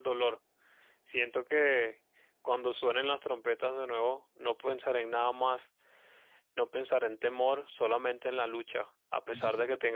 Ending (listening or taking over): listening